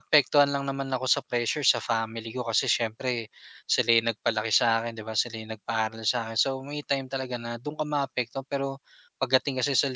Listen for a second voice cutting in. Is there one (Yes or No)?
No